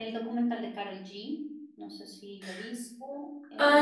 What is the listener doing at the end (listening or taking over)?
taking over